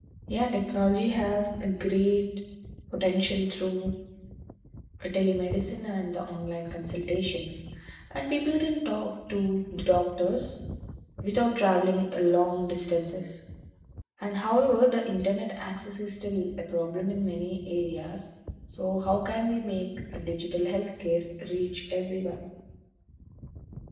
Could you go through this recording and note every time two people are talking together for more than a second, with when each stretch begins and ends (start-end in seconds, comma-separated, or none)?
none